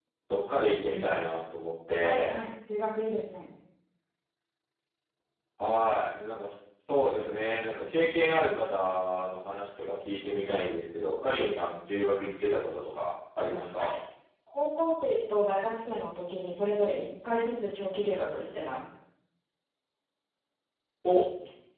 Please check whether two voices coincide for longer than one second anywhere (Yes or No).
No